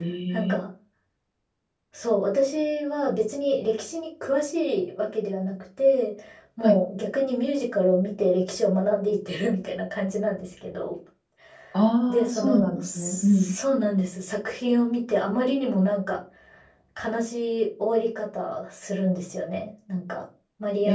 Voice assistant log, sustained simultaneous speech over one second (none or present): present